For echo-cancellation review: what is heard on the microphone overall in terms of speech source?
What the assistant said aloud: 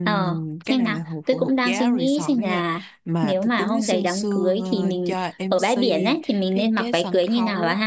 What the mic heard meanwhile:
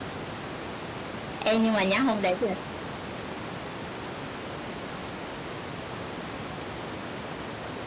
user only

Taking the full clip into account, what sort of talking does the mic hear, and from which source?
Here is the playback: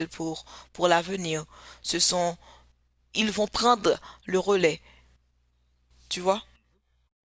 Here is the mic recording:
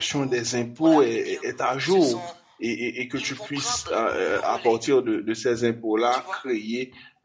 both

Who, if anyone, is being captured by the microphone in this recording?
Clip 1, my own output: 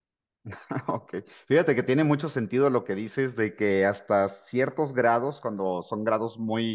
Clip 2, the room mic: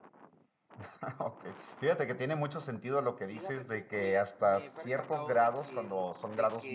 both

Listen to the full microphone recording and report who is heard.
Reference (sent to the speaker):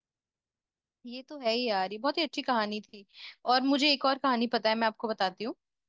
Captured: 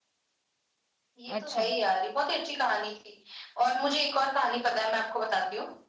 both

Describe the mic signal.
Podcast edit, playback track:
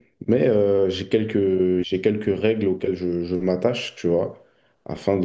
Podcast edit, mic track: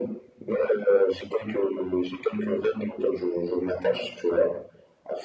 echo only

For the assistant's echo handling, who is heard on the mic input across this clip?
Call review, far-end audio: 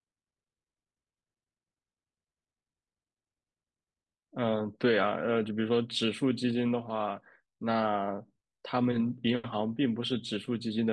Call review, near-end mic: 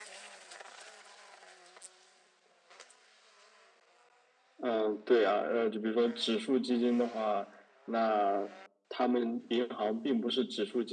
echo only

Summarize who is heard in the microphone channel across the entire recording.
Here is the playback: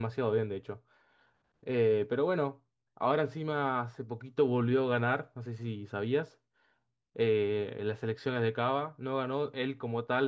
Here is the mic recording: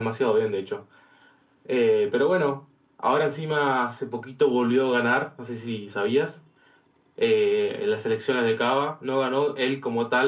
echo only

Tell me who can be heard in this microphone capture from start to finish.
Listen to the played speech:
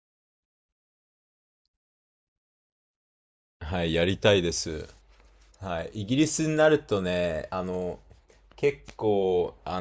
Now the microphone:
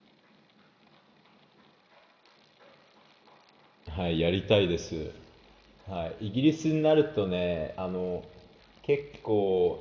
echo only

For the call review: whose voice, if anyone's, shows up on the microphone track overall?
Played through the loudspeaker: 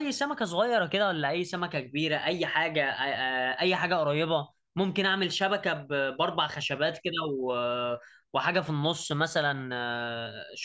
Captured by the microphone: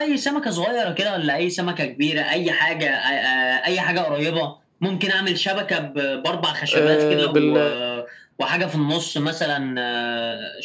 both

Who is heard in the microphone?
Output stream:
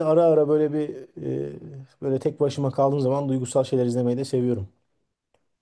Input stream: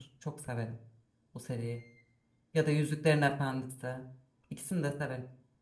user only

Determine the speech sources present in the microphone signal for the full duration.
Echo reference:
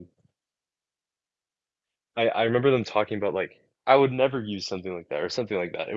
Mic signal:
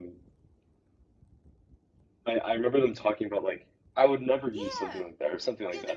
both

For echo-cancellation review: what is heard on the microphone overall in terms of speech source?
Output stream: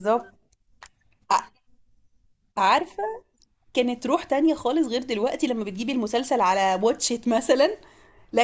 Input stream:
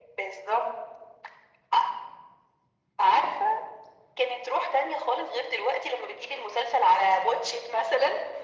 echo only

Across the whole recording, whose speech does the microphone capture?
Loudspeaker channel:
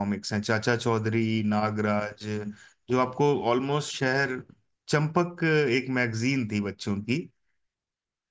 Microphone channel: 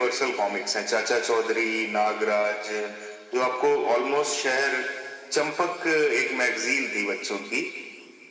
echo only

